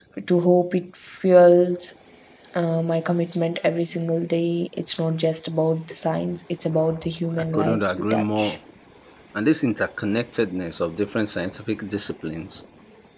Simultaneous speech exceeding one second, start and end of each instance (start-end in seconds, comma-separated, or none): 7.3-8.6